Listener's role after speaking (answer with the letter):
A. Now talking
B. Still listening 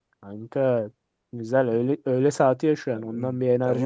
A